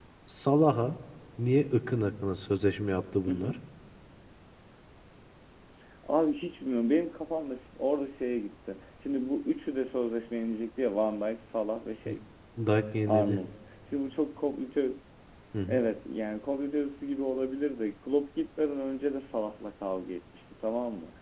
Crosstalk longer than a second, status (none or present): none